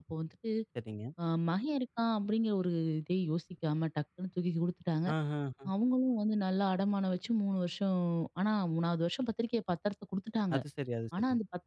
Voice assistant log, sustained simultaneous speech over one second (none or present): none